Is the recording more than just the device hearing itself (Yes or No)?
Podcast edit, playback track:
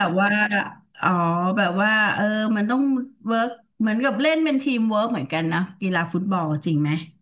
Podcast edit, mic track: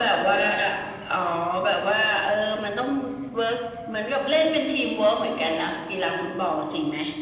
No